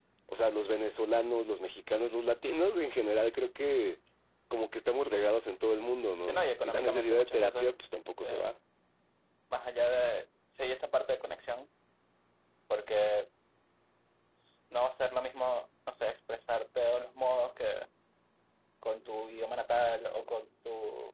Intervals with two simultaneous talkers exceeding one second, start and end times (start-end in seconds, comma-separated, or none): 6.2-7.7